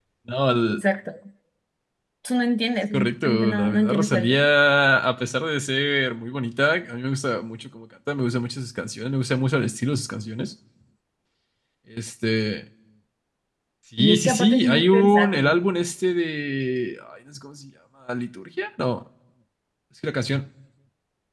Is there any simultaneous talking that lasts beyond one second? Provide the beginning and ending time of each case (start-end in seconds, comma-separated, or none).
2.9-4.5, 14.0-15.6